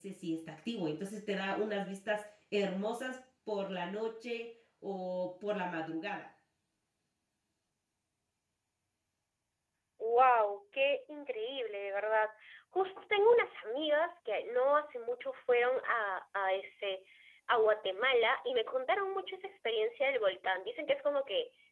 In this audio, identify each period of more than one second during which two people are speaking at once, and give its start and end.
none

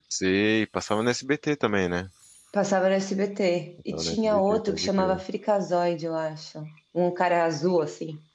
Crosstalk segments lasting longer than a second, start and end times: 3.9-5.2

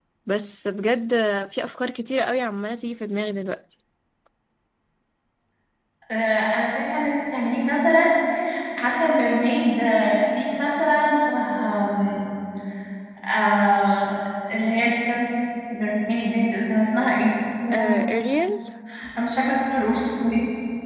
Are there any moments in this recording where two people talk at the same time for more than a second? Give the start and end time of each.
none

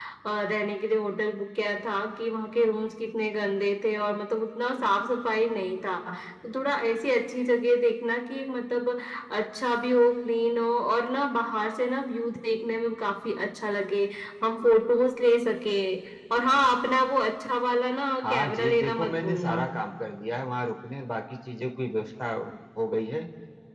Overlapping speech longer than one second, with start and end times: 18.2-19.6

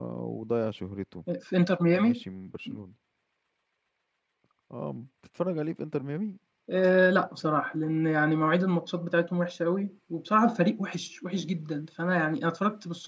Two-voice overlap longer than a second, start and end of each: none

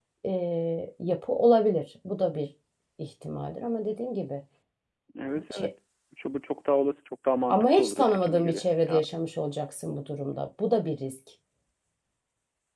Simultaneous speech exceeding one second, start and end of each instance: 7.5-9.0

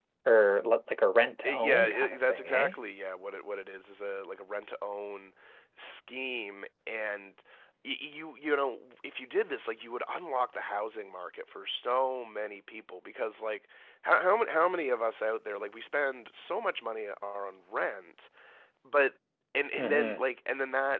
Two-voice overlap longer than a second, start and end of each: 1.4-2.8

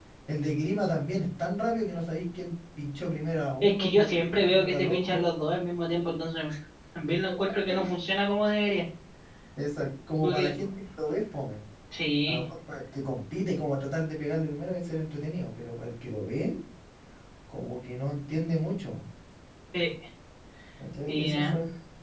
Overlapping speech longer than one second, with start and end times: 3.6-5.2

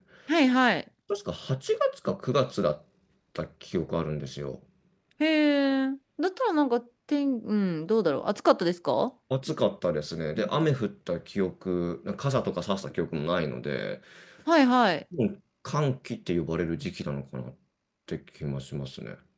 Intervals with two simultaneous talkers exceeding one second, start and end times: none

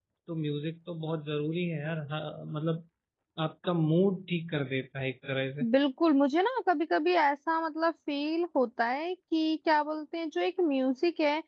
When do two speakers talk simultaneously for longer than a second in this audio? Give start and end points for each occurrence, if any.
none

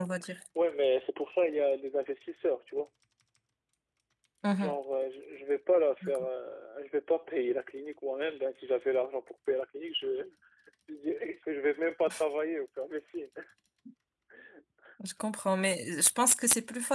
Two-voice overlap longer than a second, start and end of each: none

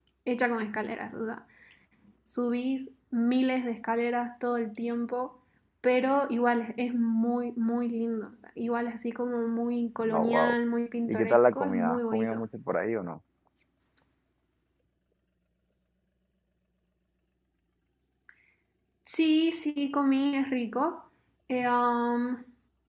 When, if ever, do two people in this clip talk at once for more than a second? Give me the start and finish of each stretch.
11.1-12.4

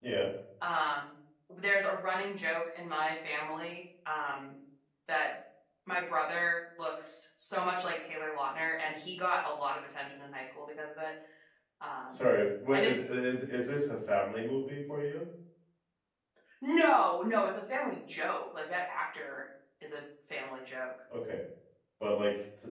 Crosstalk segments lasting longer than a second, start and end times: none

